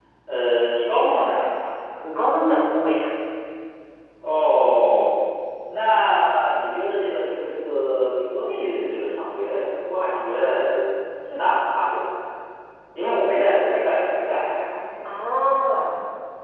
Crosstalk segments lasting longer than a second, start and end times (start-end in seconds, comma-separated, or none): none